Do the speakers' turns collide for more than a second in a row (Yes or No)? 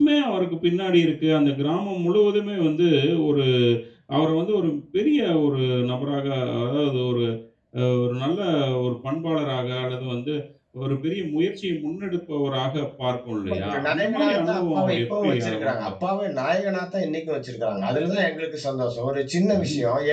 Yes